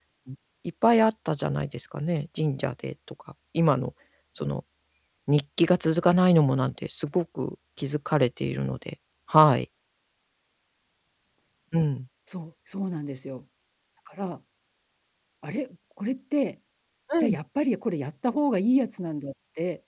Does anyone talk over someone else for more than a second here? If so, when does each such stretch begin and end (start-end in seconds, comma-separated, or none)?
none